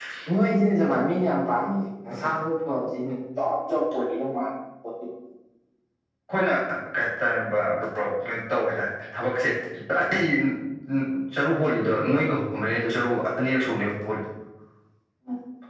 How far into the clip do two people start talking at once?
none

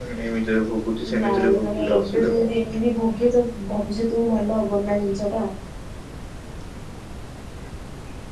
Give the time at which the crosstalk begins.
1 s

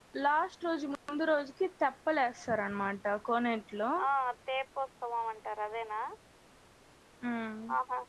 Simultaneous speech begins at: none

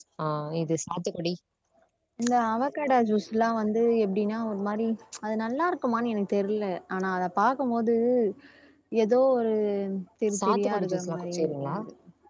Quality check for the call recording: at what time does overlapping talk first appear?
10 s

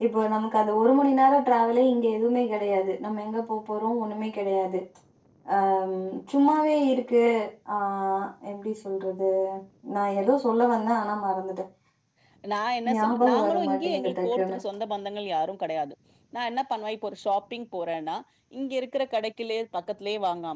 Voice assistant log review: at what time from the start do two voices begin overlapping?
13 s

